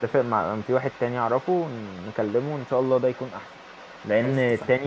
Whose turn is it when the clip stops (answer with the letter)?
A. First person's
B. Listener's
A